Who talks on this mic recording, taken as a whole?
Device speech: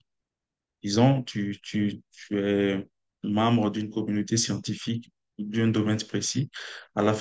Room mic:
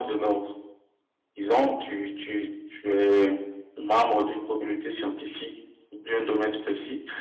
echo only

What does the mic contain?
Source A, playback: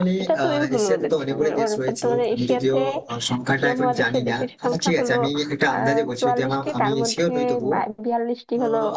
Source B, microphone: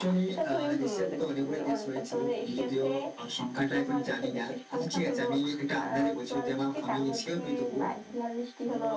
echo only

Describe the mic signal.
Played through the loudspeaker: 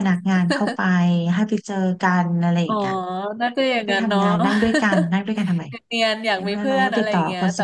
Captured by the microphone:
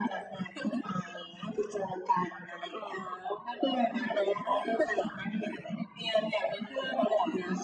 echo only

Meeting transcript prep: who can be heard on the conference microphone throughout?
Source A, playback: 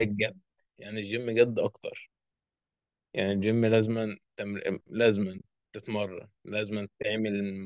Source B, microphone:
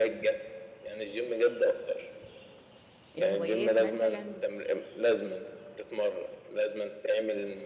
both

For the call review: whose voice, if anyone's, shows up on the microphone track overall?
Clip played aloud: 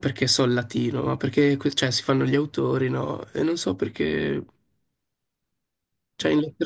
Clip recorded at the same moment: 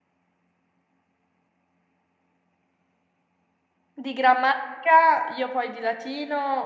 user only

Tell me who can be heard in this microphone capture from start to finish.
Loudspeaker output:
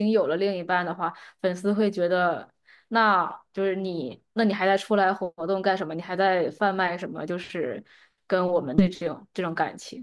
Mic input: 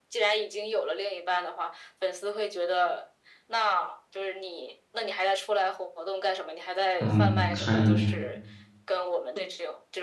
both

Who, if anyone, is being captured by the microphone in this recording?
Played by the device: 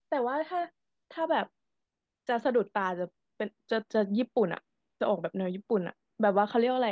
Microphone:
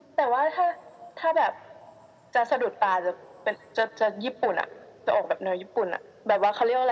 echo only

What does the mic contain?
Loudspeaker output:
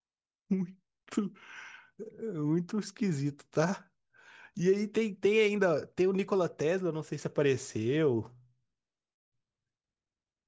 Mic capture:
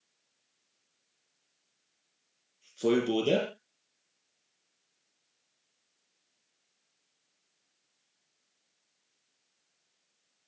user only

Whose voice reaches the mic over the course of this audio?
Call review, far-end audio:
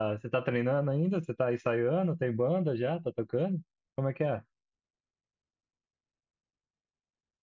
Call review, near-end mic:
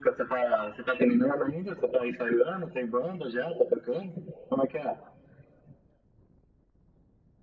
echo only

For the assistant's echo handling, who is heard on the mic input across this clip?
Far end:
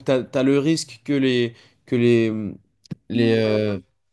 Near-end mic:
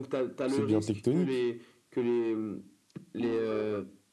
both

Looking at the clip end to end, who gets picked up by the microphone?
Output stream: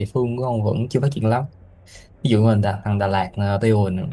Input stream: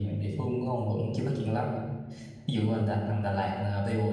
echo only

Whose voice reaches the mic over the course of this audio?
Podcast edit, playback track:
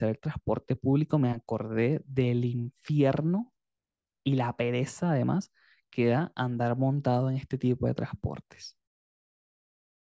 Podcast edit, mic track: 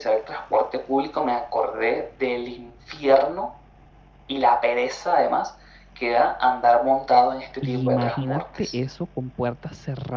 both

